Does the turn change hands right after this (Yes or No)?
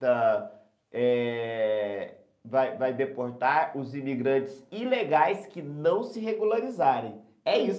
No